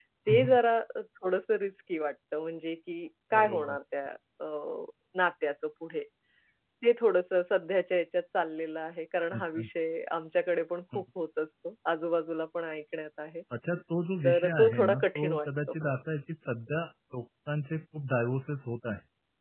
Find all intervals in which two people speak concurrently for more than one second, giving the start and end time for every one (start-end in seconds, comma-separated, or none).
14.2-15.8